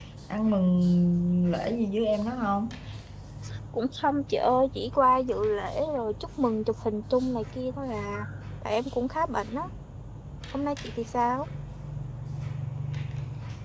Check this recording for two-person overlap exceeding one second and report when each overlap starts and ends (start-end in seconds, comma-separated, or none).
none